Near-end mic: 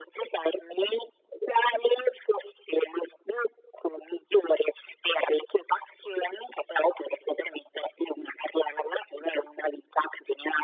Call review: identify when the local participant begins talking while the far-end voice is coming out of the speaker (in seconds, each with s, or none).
none